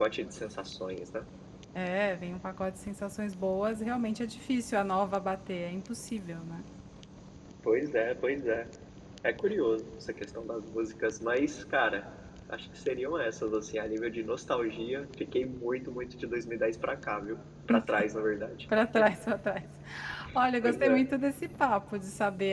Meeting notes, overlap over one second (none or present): none